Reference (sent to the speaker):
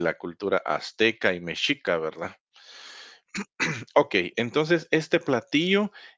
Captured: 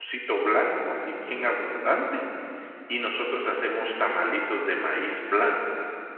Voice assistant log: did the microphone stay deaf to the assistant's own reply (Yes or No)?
Yes